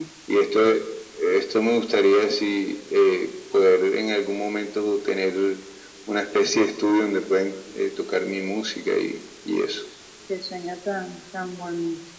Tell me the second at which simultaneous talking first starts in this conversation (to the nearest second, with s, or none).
none